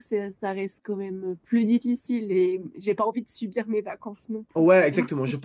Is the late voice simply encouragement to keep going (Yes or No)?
No